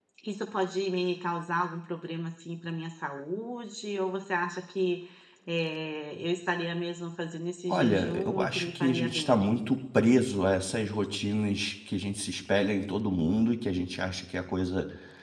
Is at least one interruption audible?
Yes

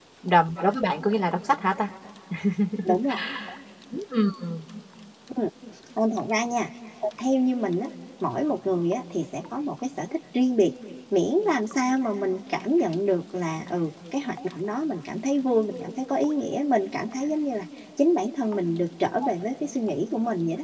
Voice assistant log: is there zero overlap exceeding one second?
Yes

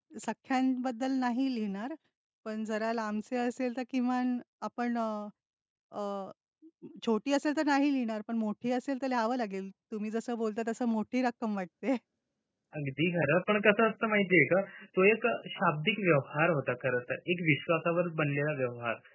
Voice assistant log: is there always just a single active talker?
Yes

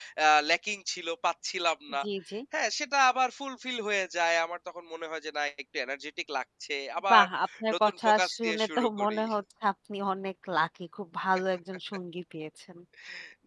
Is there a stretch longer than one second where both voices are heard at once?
Yes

